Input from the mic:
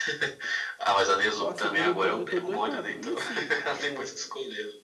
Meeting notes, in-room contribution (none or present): present